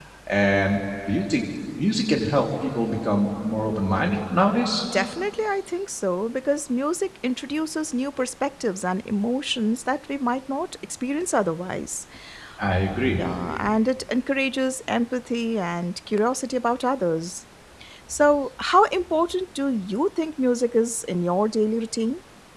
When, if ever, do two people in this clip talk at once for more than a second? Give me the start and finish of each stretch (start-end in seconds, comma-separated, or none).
none